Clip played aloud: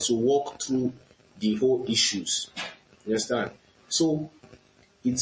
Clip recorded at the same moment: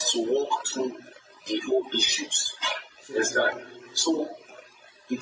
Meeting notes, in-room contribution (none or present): present